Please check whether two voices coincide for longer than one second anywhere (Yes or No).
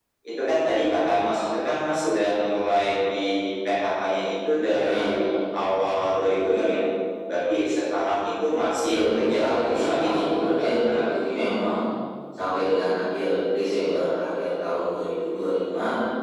Yes